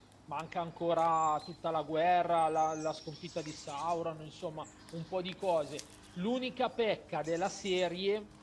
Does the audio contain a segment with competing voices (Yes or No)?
No